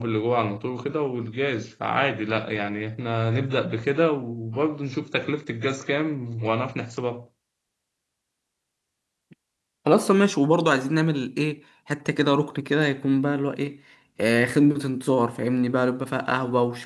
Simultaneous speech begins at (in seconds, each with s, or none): none